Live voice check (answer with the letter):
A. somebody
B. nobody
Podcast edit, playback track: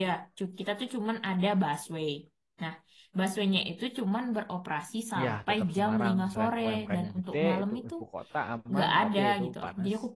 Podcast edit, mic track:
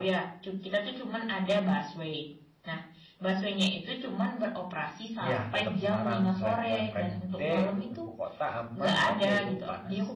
B